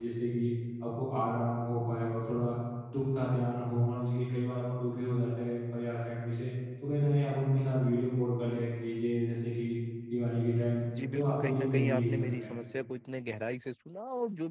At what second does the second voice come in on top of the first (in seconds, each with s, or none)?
11.0 s